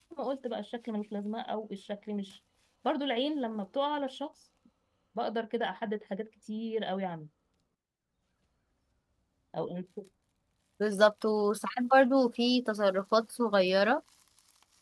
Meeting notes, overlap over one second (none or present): none